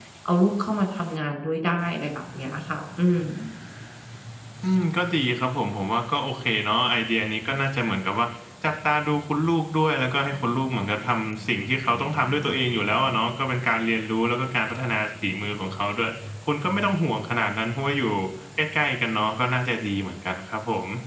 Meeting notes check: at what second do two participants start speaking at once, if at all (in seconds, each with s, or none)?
none